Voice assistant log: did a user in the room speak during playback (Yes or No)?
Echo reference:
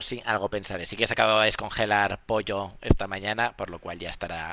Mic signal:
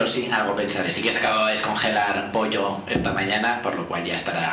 No